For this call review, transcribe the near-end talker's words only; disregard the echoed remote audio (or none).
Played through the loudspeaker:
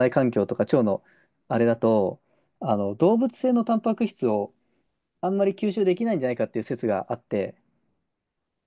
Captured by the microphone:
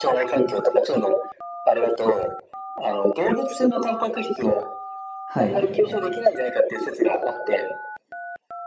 はい。